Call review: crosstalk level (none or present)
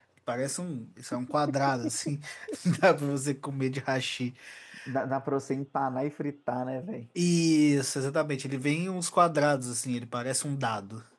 none